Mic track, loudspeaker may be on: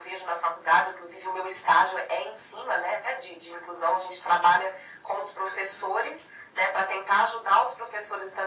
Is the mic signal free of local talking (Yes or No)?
Yes